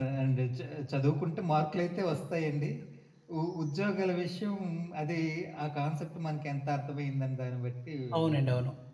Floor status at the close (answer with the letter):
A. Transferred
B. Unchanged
A